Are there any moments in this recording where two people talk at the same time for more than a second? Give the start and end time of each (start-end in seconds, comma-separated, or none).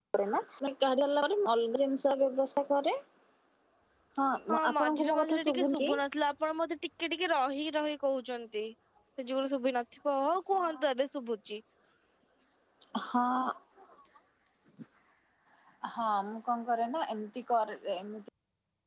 4.7-5.9